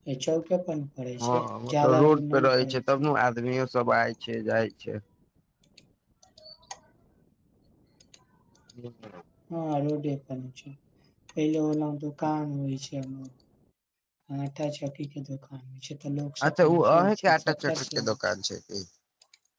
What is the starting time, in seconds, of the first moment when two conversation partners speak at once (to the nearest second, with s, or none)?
1 s